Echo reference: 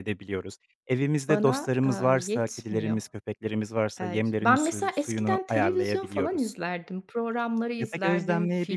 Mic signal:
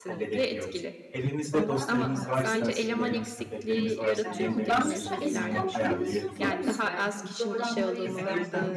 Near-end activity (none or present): present